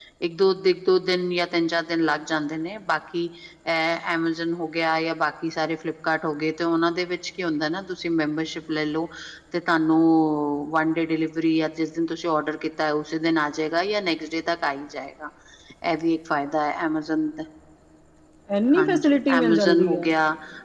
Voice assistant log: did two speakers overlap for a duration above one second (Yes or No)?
Yes